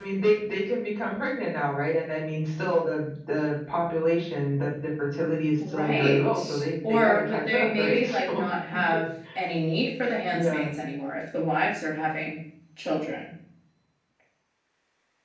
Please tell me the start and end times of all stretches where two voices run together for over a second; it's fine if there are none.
5.7-8.4

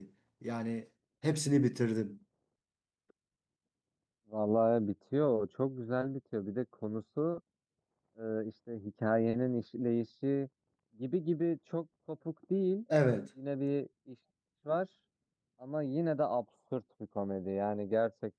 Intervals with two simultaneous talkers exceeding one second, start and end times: none

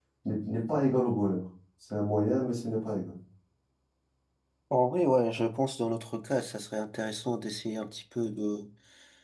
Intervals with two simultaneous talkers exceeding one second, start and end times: none

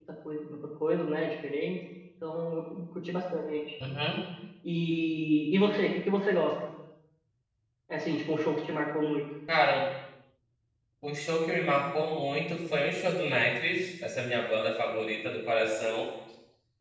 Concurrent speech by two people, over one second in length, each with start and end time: none

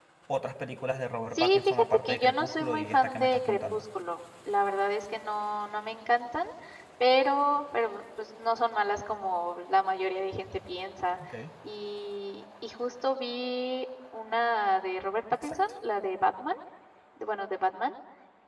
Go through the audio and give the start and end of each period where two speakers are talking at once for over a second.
1.4-3.8

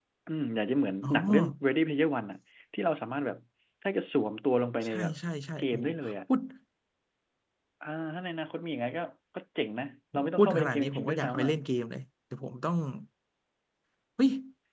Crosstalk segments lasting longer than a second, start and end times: 10.1-11.5

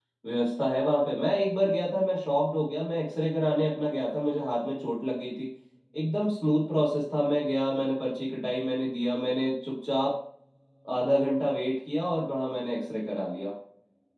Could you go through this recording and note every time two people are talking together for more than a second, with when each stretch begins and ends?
none

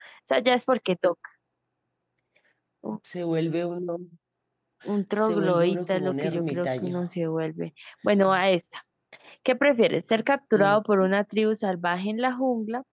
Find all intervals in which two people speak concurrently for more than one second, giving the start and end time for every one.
5.2-7.0

